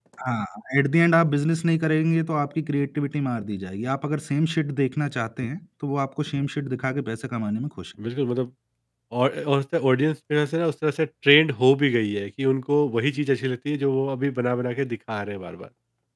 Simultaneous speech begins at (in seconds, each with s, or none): none